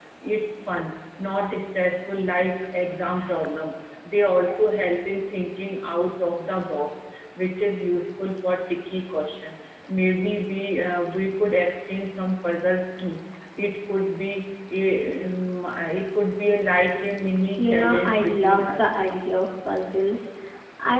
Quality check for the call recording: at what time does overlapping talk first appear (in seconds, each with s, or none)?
17.6 s